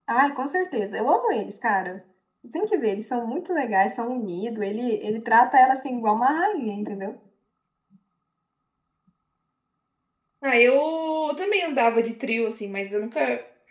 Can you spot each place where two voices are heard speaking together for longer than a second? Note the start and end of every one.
none

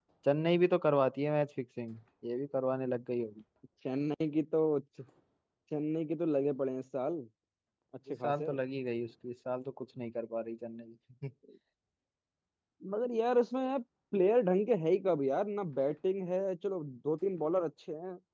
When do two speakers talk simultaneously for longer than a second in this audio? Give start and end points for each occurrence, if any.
none

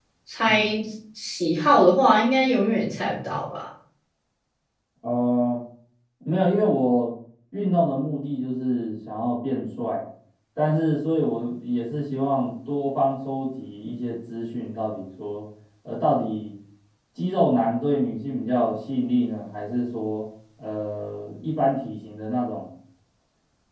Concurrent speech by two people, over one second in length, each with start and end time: none

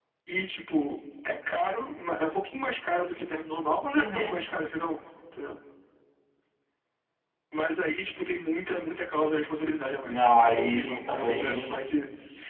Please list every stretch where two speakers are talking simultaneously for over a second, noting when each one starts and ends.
10.0-11.9

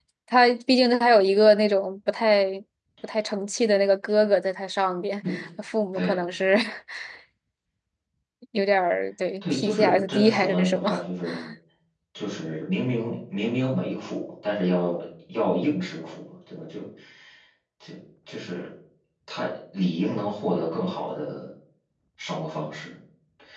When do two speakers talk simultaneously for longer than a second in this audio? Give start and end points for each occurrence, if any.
9.4-10.9

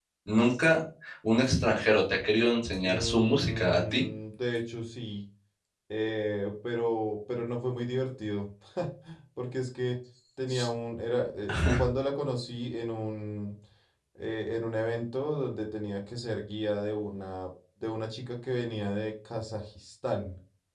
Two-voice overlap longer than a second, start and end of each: 2.8-4.0

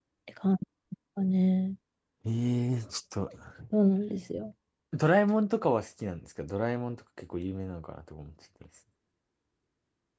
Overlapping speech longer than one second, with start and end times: none

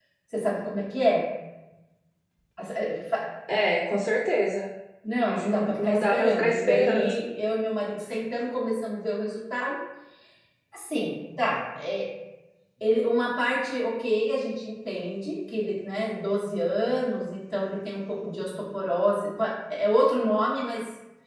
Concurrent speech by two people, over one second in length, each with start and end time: 5.2-7.1

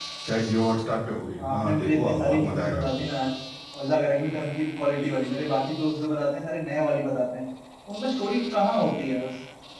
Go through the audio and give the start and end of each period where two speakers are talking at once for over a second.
1.5-3.1

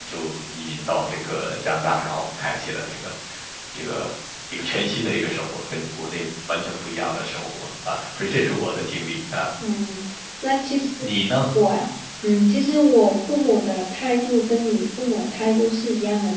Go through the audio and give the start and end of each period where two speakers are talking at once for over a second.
none

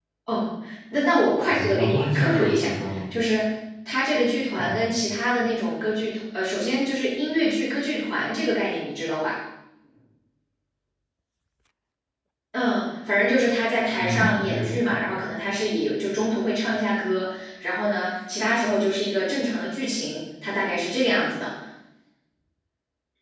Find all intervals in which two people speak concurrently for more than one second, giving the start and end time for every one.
1.5-2.7, 14.0-15.2

